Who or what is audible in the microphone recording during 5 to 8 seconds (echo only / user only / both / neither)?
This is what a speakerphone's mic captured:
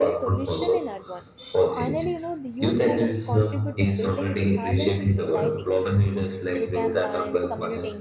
both